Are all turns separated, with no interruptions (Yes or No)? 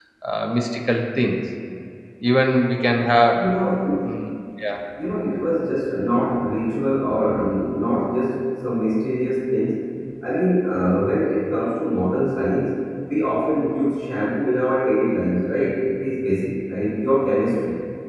Yes